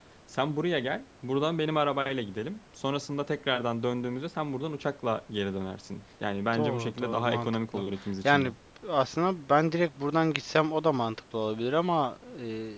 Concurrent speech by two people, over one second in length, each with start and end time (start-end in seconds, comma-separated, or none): 6.6-7.8